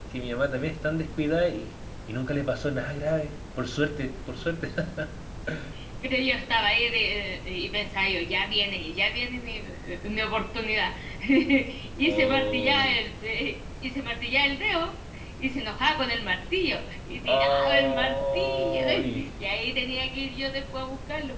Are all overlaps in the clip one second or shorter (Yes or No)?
No